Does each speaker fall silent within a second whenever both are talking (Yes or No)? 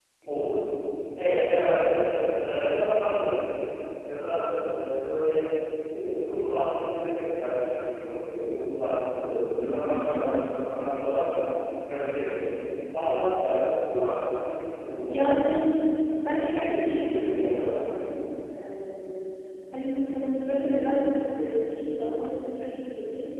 No